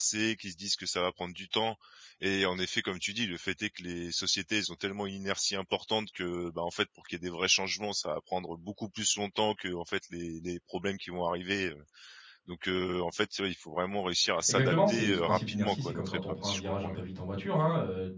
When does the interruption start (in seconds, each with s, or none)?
14.4 s